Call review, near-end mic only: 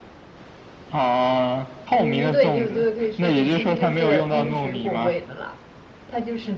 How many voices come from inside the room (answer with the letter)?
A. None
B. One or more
B